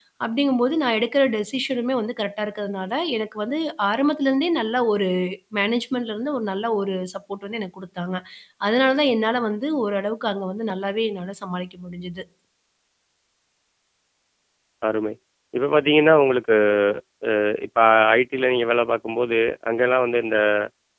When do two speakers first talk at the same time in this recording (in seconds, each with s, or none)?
none